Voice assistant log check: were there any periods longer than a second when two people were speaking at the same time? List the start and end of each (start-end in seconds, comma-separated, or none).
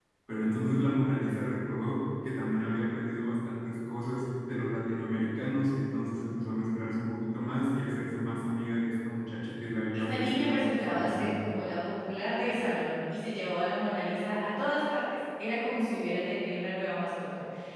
9.9-11.4